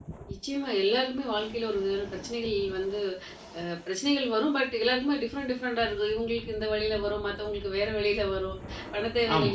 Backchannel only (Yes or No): Yes